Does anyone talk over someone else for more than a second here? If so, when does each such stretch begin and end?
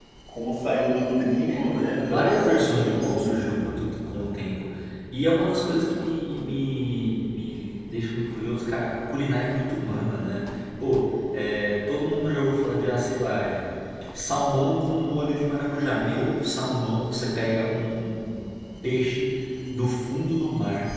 2.0-3.6

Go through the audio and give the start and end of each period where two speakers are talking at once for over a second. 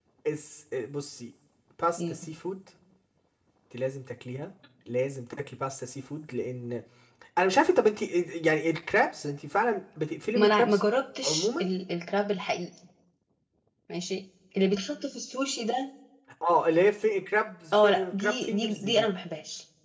17.7-19.0

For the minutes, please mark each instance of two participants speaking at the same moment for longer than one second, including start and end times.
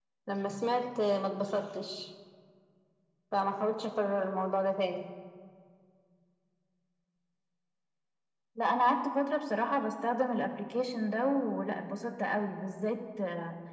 none

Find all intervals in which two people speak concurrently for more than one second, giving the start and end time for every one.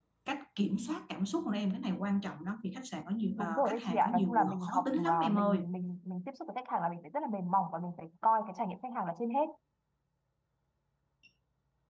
3.4-5.6

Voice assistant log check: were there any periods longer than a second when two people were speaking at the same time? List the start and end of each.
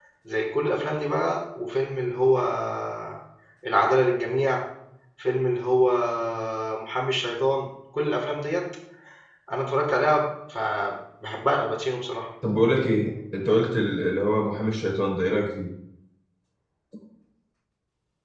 none

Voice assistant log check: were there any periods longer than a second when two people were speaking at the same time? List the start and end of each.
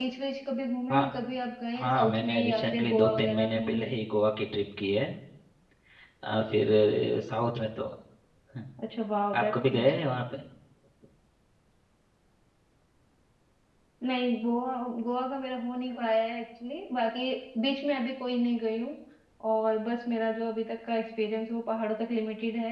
1.8-3.9

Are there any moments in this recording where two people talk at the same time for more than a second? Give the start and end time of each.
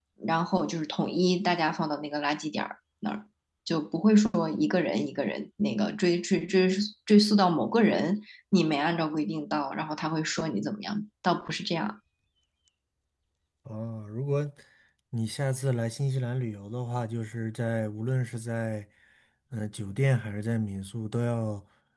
none

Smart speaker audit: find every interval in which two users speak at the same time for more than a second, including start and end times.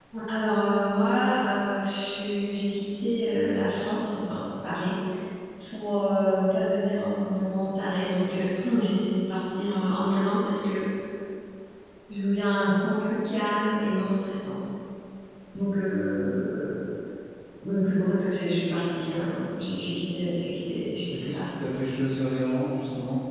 none

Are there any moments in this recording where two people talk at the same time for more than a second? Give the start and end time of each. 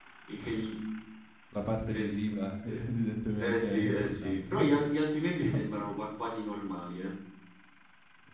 3.4-4.8

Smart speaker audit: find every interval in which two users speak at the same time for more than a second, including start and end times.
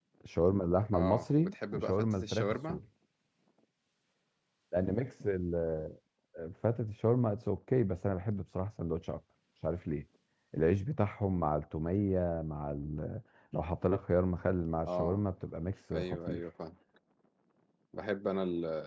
0.9-2.8

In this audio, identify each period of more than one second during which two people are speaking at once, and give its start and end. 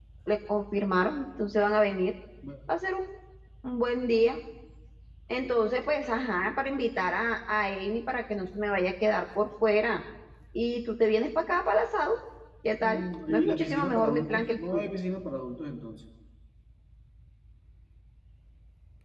12.8-14.9

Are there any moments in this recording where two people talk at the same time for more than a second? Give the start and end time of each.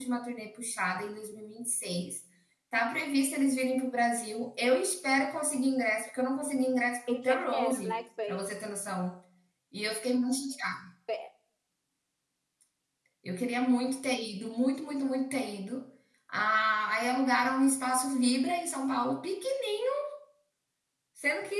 7.1-8.6

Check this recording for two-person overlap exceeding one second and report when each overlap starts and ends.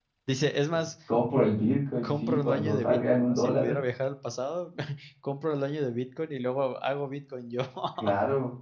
2.0-3.8

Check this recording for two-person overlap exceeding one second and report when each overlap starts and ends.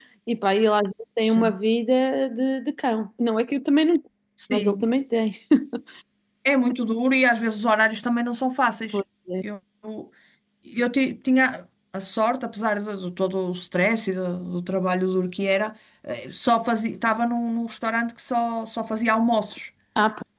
none

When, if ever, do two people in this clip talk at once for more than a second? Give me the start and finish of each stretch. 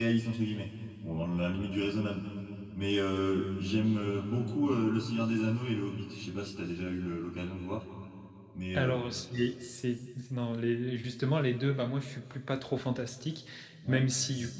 none

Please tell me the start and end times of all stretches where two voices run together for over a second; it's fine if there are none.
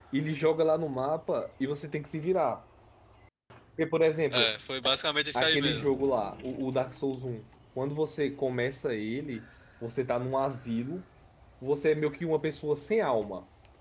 none

